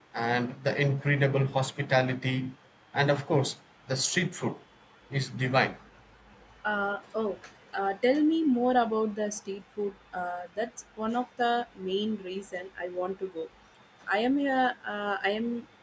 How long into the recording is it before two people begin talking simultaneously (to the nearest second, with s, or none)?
none